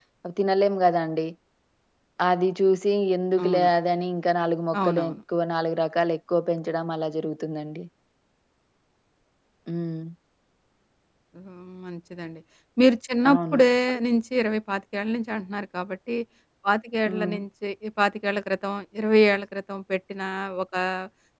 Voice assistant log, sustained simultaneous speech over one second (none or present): none